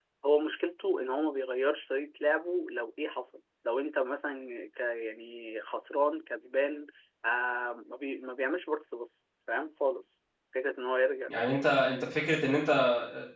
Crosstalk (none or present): none